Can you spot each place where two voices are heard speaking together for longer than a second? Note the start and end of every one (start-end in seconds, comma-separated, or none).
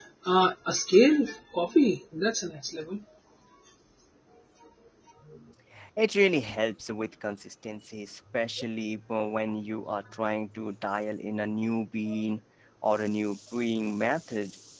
none